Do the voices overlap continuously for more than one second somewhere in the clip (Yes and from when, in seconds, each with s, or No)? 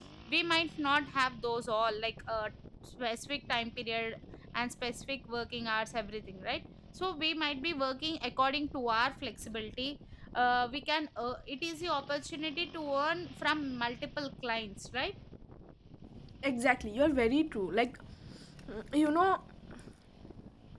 No